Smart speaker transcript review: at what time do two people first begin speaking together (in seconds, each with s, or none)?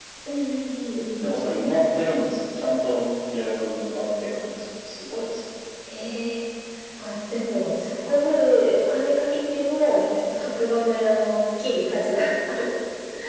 none